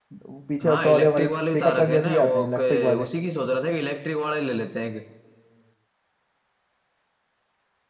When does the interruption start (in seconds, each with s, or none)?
0.6 s